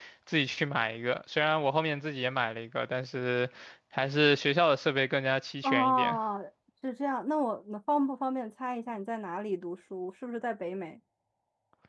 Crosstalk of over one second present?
No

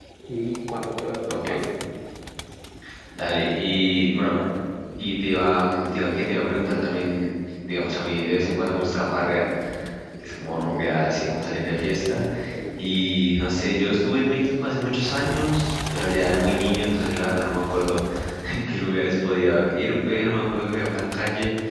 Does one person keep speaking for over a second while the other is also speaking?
No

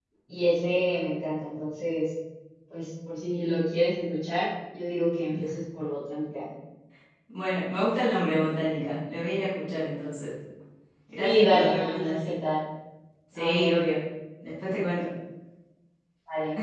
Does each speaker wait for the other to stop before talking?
No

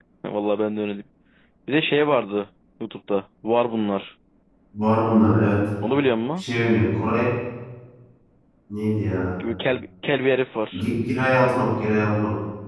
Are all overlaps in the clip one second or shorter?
Yes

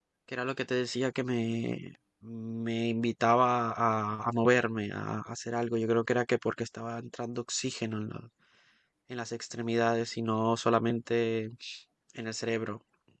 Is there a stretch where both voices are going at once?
No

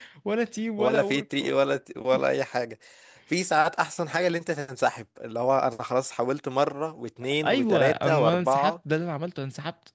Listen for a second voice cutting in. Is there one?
Yes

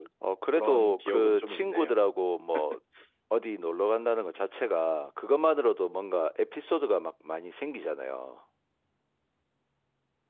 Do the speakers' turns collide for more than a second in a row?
Yes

